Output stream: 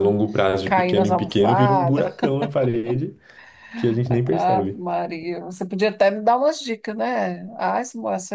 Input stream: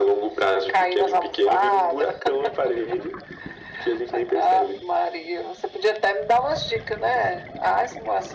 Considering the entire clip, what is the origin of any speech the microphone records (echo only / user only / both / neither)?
echo only